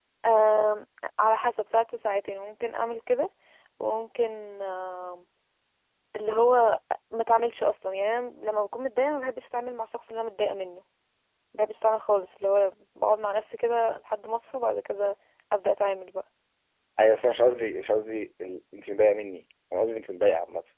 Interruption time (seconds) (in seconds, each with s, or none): none